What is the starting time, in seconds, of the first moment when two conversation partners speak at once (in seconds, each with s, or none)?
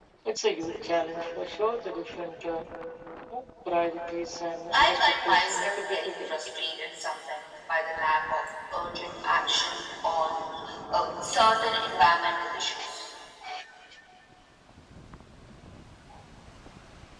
4.7 s